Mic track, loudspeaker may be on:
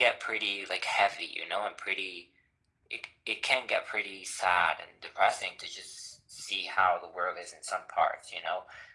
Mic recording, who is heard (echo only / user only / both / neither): echo only